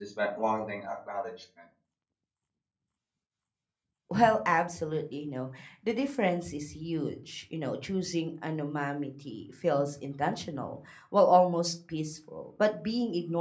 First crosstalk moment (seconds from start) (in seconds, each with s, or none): none